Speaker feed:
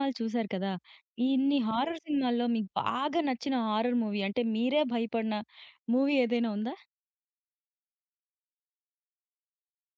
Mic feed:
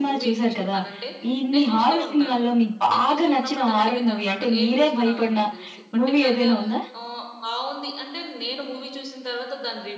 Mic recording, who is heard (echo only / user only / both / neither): both